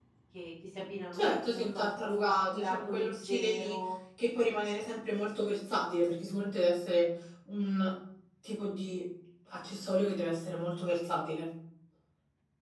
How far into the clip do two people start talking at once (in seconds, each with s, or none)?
1.1 s